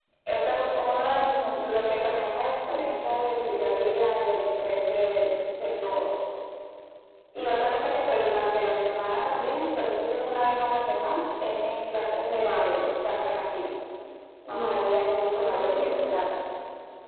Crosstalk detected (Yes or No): Yes